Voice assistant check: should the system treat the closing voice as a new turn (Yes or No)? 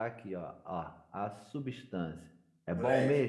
Yes